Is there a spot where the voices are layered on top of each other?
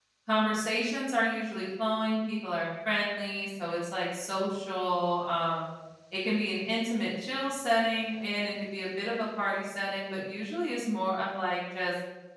No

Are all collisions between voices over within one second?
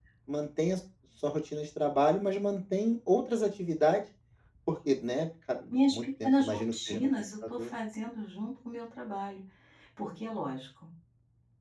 No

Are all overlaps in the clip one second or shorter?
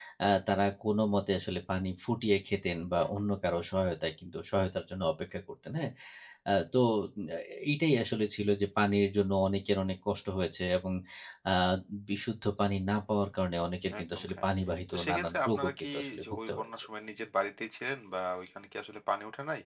No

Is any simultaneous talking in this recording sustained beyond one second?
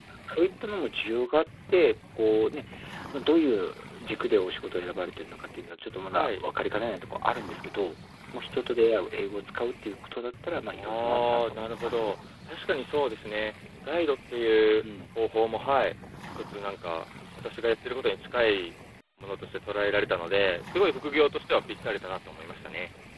Yes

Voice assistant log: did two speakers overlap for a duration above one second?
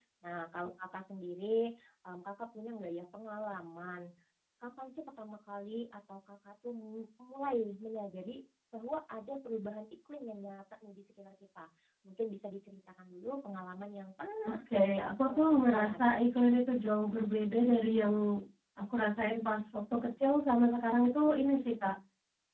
Yes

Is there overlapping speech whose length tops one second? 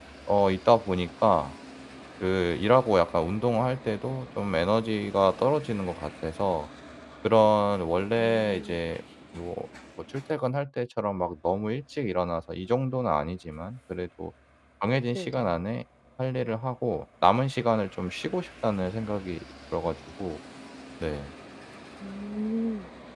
No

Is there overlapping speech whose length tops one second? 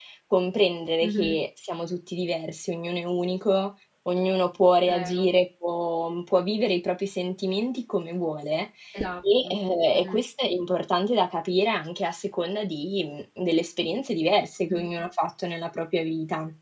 No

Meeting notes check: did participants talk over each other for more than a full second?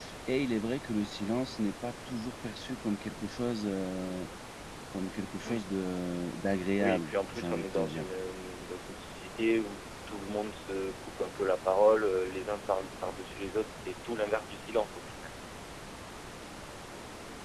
Yes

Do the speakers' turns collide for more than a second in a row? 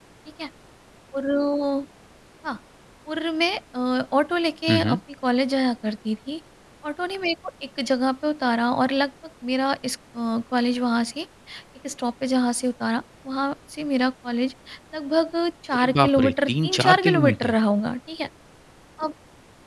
Yes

